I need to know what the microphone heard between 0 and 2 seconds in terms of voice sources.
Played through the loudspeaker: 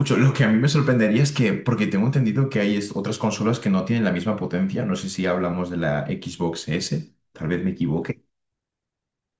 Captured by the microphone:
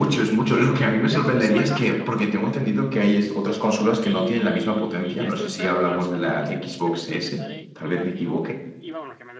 both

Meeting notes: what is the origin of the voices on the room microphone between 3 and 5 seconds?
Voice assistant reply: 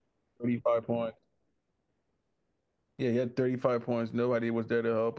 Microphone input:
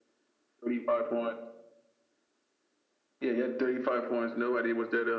echo only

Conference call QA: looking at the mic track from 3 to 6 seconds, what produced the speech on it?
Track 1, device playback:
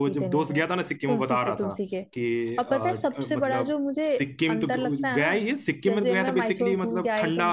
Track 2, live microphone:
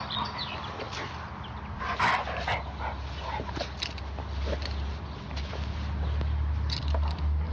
neither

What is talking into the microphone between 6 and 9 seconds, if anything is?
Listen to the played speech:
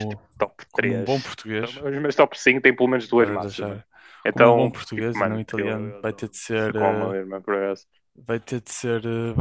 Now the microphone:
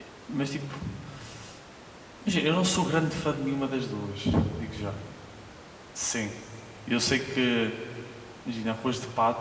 user only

